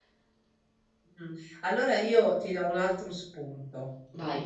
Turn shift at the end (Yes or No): No